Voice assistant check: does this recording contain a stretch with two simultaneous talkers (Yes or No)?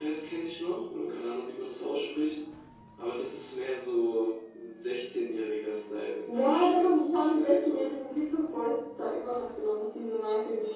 Yes